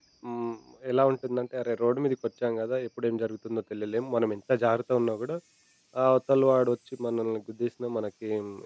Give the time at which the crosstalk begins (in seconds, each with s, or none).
none